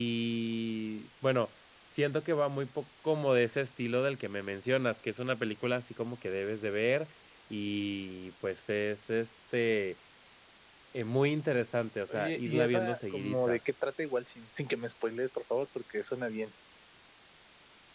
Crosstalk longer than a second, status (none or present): present